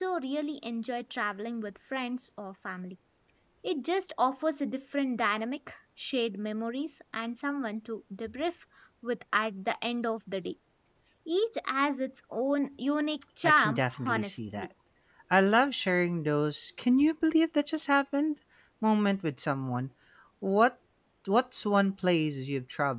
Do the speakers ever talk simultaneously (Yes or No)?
Yes